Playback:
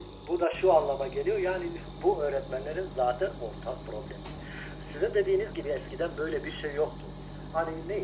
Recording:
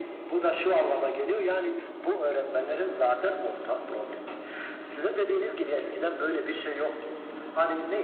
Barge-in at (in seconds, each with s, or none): none